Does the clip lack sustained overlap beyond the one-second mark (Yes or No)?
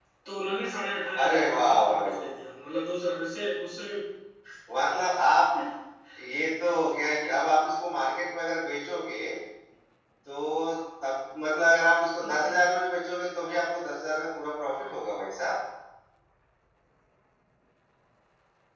No